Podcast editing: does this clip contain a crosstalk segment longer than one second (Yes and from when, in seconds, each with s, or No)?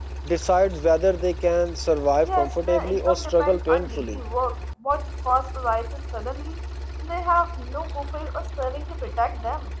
Yes, from 2.2 s